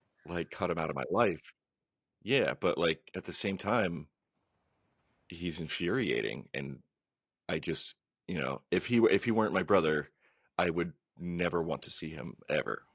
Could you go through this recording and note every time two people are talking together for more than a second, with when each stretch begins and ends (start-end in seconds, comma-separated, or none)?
none